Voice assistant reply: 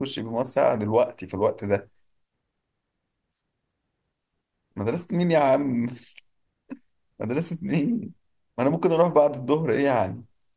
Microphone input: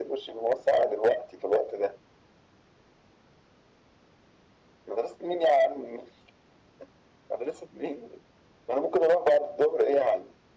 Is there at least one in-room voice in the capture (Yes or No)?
No